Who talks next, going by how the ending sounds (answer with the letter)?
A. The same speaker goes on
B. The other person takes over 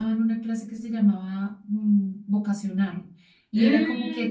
A